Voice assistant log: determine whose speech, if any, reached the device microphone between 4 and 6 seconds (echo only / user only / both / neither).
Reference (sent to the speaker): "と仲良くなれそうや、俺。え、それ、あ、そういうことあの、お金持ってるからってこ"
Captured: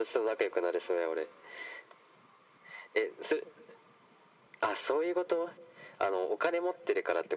echo only